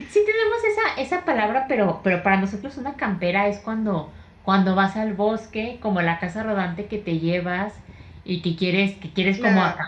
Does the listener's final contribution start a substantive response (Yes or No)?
No